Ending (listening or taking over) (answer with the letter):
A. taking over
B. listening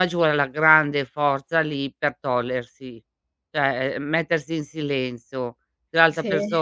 B